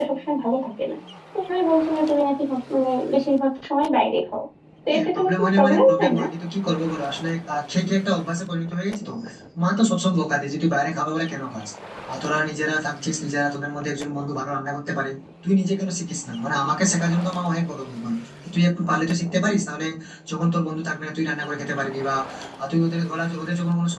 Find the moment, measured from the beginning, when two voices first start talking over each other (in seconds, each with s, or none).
4.9 s